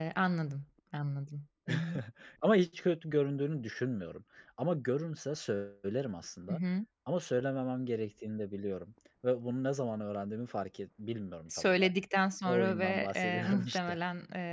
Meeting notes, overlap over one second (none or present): present